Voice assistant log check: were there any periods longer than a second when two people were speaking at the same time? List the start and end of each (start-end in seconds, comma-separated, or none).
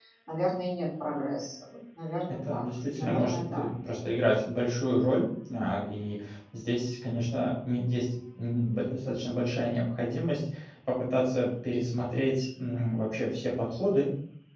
2.3-3.7